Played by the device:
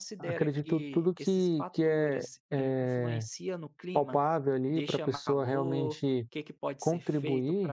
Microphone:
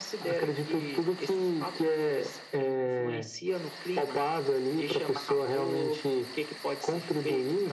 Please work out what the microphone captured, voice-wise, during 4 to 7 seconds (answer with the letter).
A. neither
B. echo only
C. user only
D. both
B